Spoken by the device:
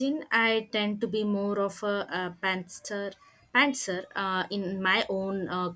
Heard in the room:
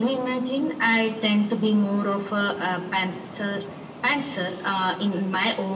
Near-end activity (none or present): none